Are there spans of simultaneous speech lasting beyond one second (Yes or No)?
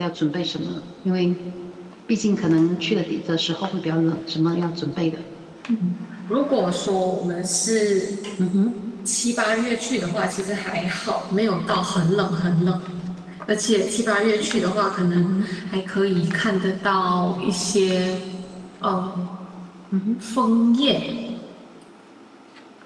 No